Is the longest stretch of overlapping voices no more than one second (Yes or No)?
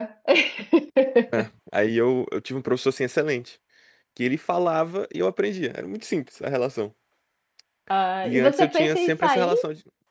No